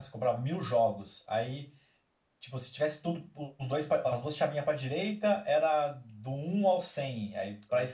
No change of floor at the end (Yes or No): Yes